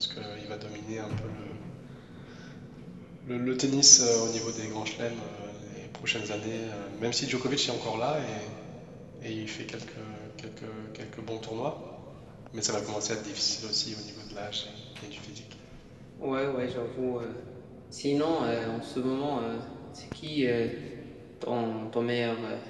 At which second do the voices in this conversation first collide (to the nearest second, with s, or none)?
none